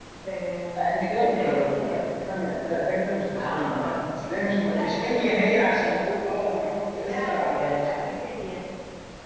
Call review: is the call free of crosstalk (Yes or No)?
No